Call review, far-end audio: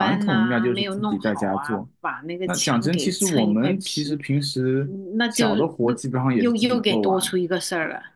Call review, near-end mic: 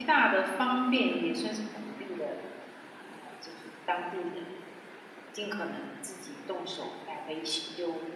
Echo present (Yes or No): No